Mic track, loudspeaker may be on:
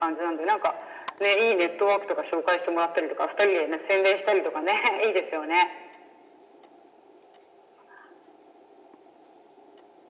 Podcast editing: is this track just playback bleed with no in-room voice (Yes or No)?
Yes